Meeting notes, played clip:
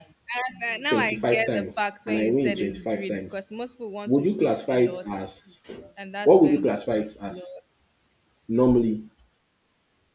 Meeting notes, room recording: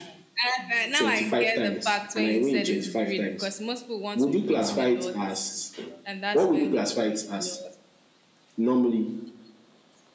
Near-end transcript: Wow.

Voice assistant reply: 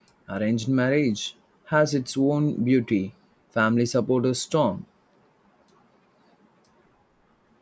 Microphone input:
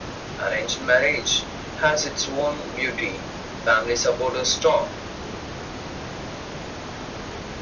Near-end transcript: none

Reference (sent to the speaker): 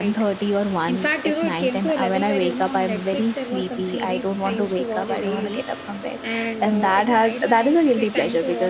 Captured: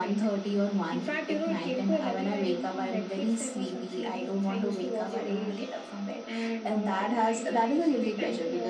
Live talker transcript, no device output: none

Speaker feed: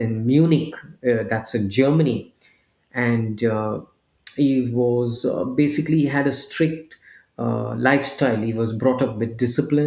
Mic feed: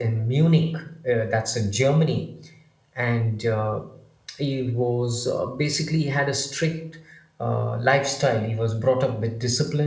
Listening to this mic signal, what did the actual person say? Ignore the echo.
none

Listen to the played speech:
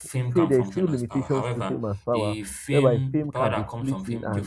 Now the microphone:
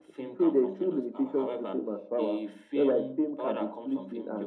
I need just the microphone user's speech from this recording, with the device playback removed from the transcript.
none

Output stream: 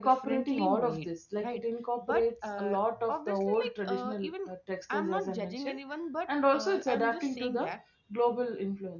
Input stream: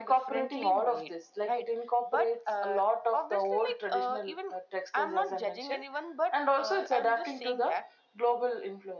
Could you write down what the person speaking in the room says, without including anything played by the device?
none

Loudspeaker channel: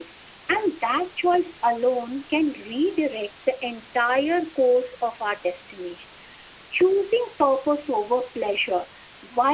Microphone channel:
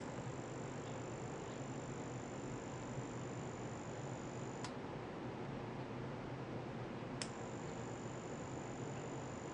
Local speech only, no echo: none

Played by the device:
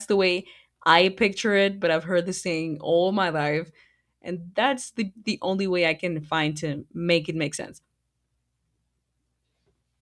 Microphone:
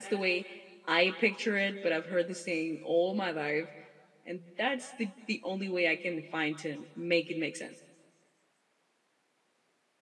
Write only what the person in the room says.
none

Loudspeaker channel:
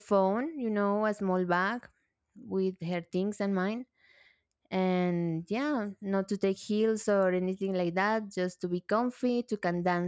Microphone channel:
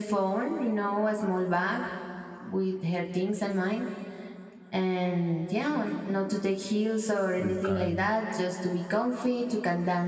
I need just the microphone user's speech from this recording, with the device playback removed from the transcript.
you can

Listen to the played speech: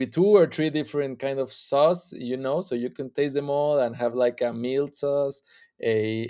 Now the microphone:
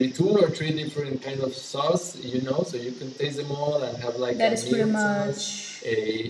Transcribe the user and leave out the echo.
that is pretty much

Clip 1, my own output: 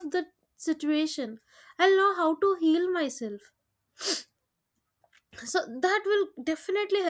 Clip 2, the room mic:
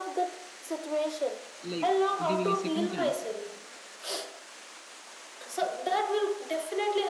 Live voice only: like giving a second chance.

